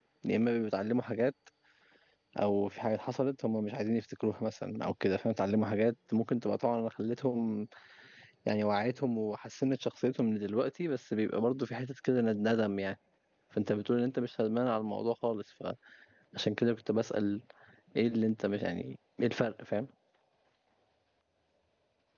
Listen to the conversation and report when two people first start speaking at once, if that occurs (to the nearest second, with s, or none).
none